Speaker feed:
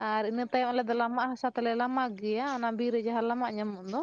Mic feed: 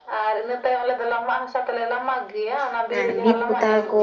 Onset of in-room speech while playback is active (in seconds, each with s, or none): 3.0 s